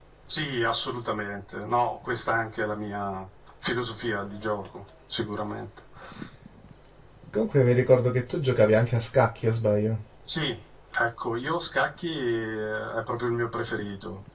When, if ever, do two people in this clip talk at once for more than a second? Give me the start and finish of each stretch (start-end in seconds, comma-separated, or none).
none